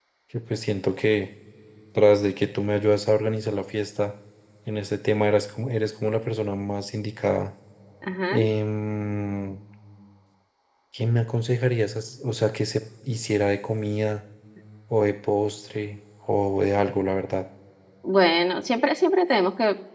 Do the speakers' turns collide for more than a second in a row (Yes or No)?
No